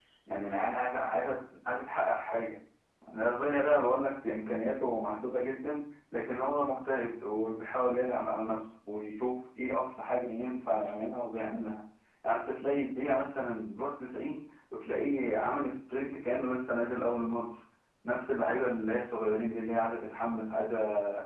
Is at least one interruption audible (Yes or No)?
No